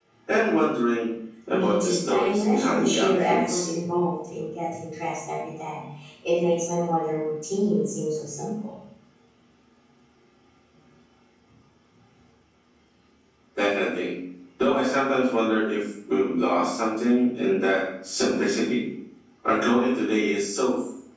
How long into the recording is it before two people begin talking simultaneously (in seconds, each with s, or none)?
1.5 s